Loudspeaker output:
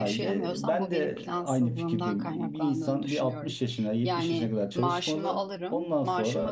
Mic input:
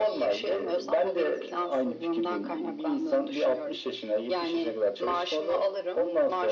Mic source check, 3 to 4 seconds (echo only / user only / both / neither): echo only